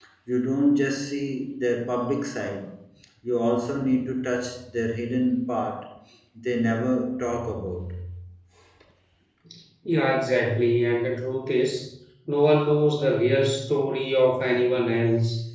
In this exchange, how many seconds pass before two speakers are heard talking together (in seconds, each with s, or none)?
none